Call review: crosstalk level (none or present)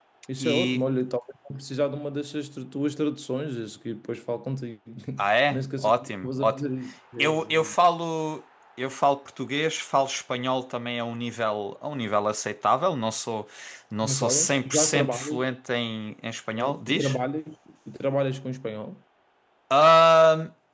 present